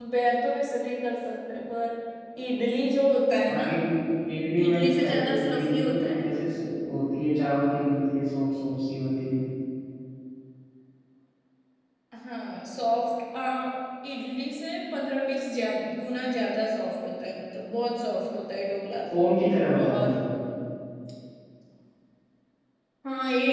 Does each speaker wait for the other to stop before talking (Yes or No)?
No